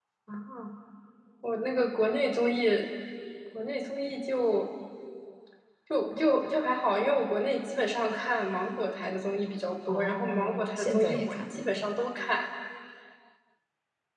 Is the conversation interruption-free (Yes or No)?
No